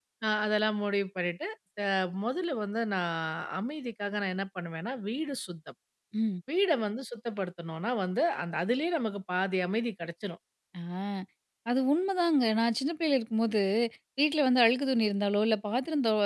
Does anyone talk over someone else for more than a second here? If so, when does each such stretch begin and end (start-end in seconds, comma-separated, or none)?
none